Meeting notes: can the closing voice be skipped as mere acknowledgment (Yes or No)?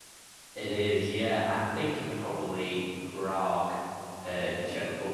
Yes